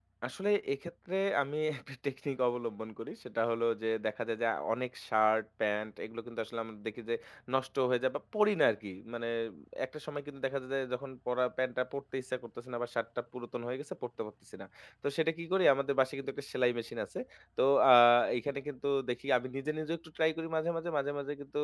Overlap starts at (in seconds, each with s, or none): none